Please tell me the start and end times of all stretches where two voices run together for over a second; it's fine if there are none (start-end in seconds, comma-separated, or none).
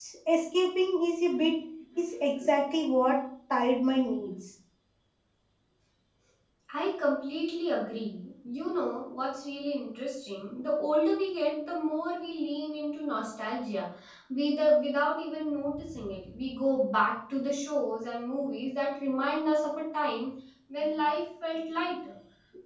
none